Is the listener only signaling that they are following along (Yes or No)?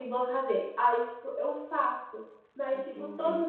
Yes